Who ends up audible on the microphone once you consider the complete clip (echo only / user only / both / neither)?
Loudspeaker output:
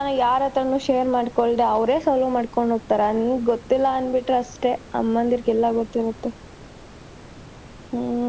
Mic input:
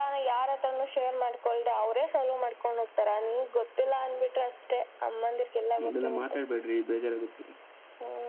both